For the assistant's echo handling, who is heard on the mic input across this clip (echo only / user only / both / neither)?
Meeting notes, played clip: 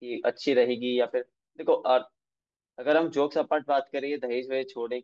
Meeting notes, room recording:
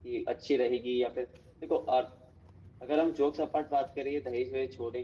echo only